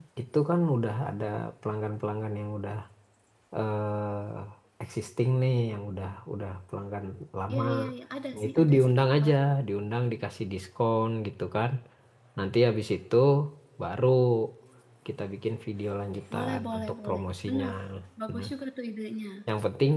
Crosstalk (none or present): present